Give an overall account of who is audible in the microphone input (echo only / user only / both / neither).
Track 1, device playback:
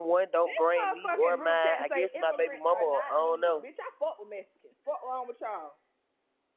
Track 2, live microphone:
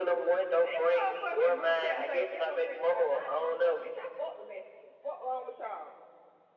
echo only